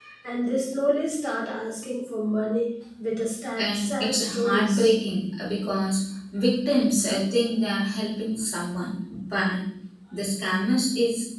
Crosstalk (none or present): present